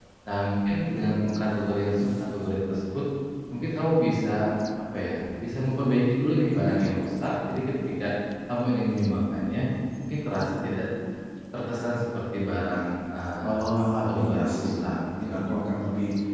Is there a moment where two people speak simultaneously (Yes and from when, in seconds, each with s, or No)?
Yes, from 13.4 s